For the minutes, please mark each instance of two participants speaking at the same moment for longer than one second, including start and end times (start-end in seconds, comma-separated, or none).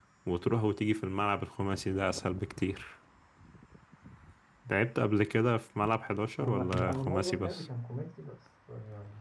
6.4-7.7